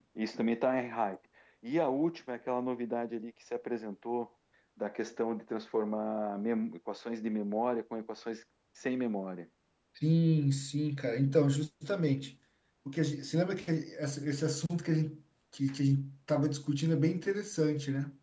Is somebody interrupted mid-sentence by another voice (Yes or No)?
No